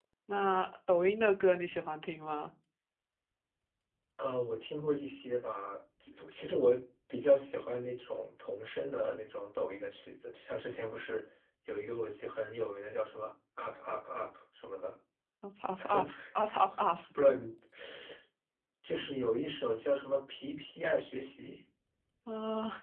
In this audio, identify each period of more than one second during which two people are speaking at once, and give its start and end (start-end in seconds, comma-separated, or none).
none